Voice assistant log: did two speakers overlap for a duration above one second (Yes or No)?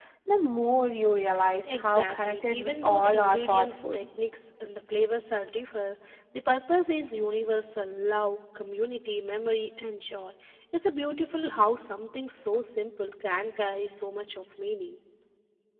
Yes